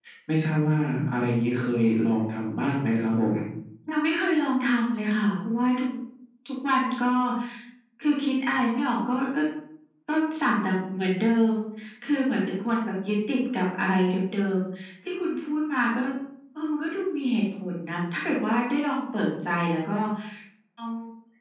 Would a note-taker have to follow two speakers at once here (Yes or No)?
No